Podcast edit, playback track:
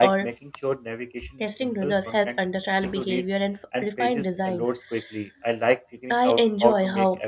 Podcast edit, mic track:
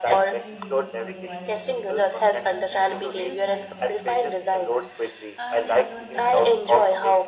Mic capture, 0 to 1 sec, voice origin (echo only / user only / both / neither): both